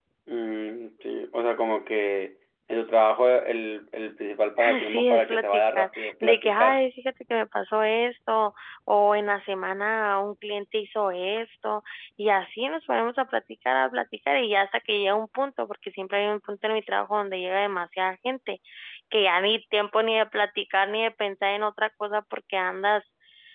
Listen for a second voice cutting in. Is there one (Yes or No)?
Yes